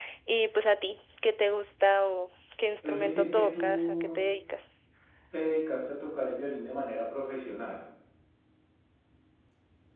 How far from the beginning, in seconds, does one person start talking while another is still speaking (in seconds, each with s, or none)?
2.8 s